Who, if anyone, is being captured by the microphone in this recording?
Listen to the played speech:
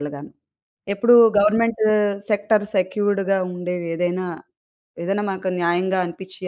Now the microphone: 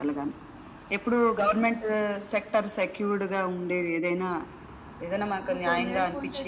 both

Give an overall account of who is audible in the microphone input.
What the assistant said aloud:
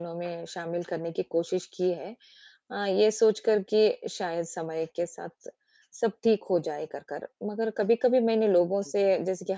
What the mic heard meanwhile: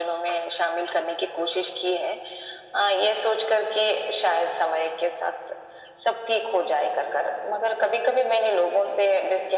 echo only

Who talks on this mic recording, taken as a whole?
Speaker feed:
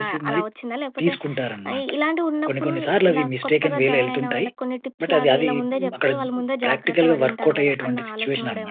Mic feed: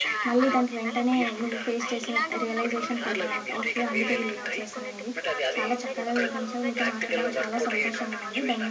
both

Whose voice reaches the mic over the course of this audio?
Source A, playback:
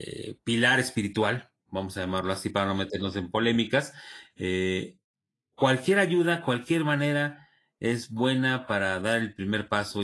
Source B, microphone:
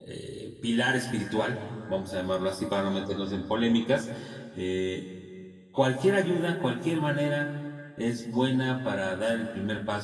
echo only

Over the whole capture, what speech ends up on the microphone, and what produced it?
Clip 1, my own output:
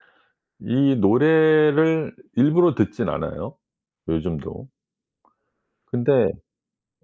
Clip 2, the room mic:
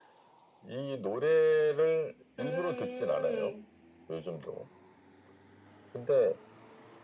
both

